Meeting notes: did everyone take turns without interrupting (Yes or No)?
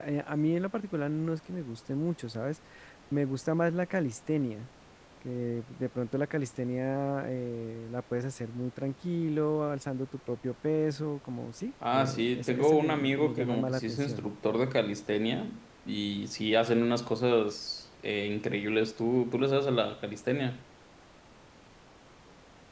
No